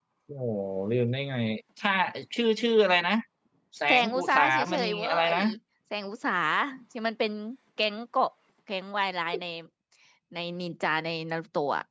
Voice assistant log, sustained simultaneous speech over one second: present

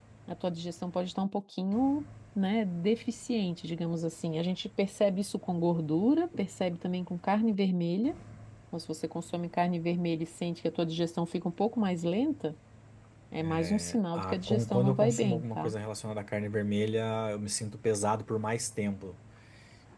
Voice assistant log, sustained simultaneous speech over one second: present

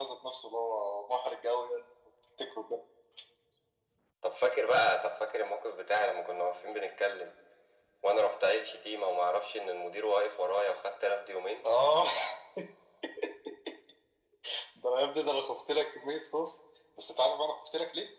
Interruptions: none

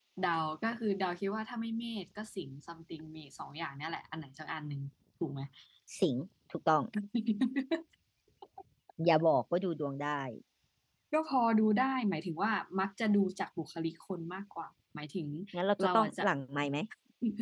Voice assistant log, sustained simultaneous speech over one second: none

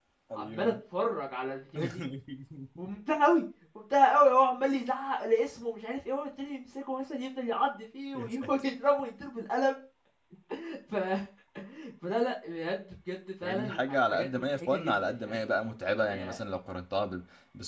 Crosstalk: present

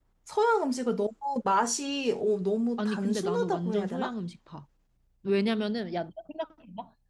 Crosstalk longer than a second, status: present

